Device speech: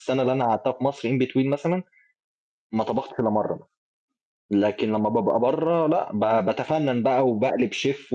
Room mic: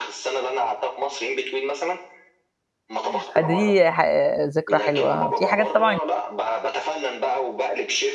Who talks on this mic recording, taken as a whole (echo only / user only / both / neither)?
both